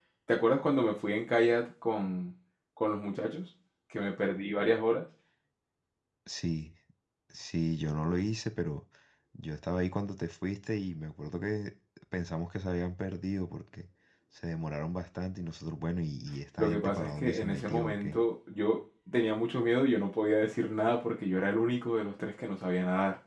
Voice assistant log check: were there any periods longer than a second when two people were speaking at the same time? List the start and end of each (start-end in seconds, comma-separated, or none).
16.6-18.2